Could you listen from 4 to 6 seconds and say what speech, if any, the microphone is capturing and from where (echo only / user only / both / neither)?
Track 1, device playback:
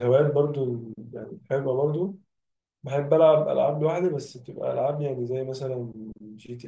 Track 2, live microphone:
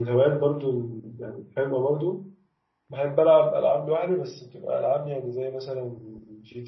echo only